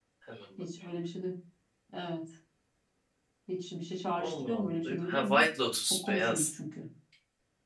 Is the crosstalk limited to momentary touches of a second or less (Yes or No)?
No